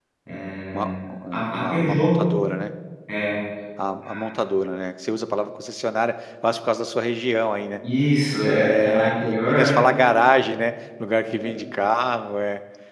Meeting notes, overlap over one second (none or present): present